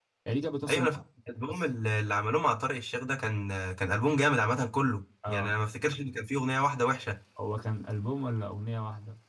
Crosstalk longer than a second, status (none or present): none